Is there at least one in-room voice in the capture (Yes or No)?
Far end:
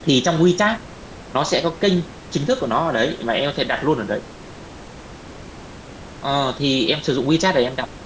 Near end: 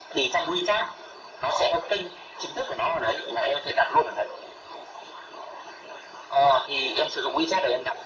No